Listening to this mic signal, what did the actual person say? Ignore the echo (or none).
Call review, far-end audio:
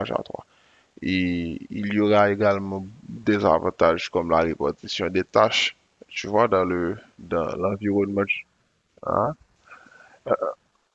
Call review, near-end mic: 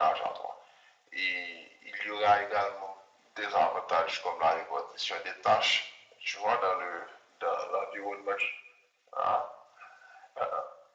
none